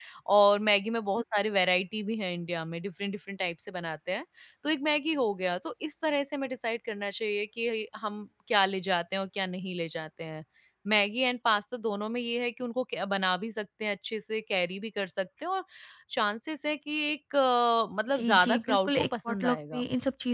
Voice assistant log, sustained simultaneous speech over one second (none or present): present